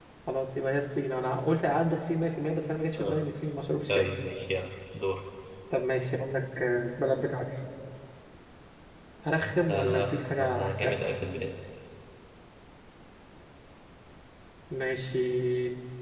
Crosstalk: present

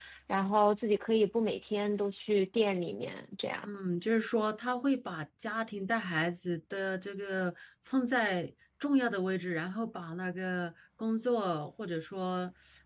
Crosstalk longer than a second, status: none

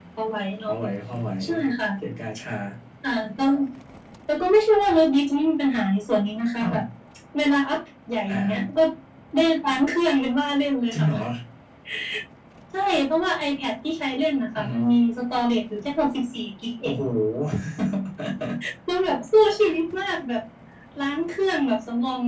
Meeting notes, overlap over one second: none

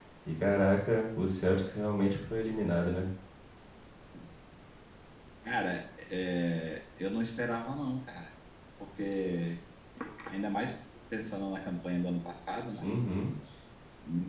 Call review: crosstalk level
none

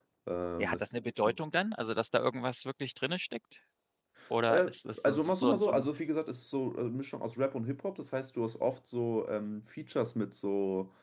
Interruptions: present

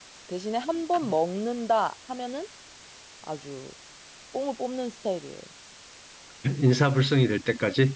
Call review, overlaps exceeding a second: none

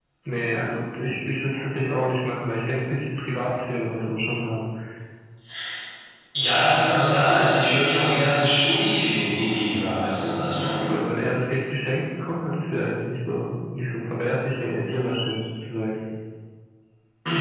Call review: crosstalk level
none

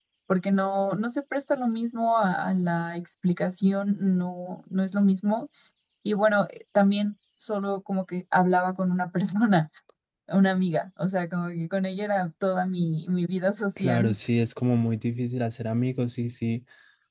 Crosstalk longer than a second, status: none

